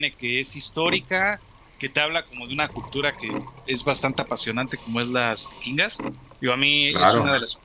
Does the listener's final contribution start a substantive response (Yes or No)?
No